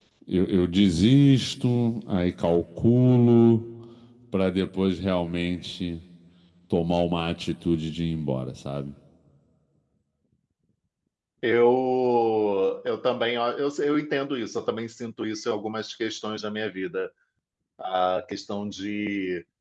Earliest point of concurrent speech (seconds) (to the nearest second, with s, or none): none